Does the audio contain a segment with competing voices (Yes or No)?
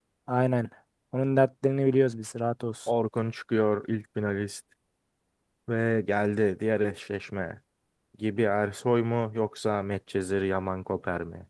No